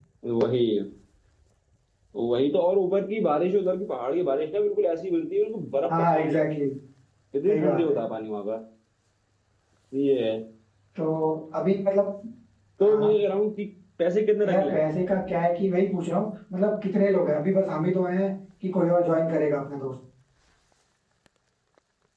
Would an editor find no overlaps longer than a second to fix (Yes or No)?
Yes